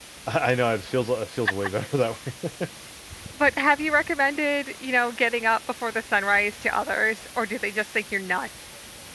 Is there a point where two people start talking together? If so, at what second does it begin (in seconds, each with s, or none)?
none